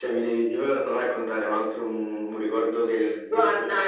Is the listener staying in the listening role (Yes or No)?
No